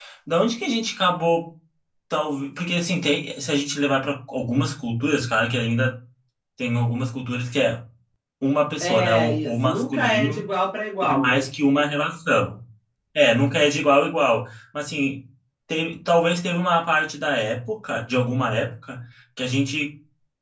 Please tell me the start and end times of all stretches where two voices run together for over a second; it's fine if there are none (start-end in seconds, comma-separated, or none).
8.8-10.5